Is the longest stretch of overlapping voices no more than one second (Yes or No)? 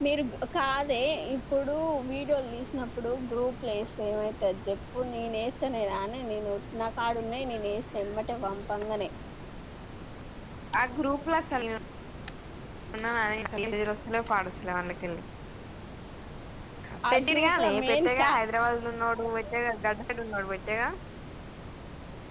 No